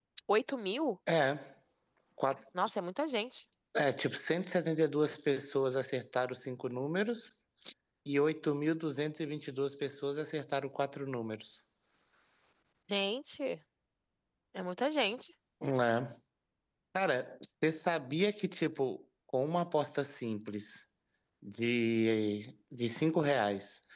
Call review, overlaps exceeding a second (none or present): none